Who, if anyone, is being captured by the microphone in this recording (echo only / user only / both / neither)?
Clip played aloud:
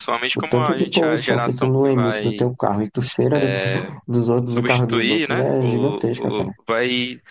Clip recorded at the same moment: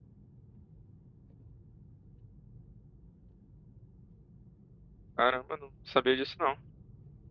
user only